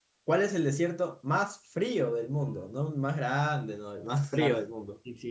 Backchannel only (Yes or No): No